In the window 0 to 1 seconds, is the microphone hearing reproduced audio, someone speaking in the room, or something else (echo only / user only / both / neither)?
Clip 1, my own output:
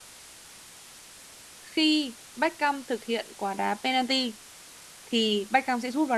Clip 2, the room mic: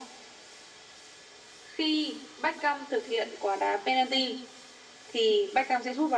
neither